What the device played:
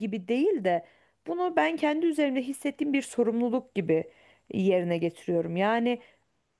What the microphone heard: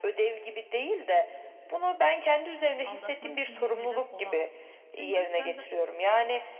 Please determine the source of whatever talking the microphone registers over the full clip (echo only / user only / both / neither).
both